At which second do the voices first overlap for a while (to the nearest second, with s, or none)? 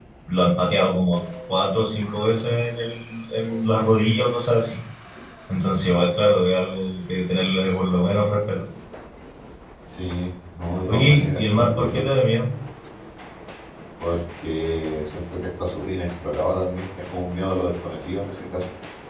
11 s